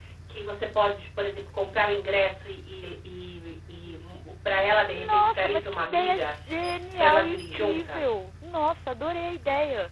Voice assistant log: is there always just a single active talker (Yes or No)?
No